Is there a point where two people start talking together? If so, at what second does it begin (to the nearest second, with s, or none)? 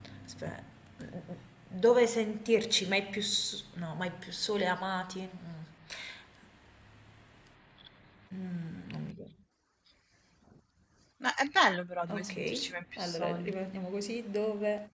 12 s